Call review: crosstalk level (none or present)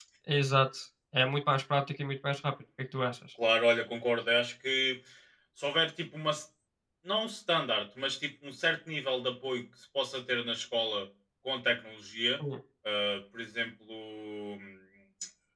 none